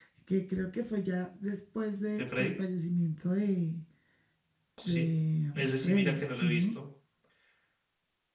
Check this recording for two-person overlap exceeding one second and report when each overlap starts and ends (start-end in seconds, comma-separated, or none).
5.5-6.8